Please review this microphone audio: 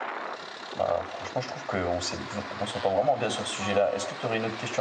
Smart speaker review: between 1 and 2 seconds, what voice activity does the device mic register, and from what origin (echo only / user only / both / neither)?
user only